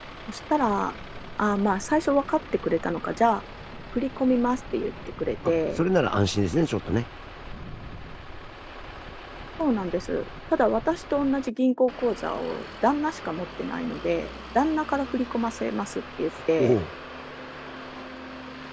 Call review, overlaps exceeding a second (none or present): none